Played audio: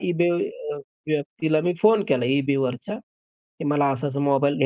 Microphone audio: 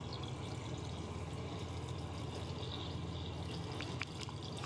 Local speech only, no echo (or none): none